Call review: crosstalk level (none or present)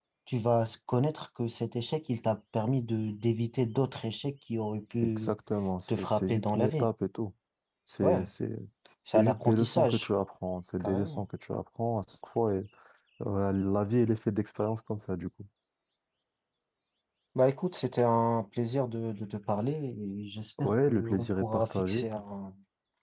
present